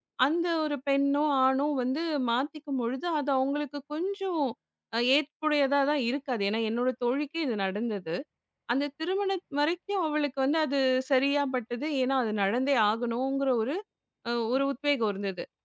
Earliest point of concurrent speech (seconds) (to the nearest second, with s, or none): none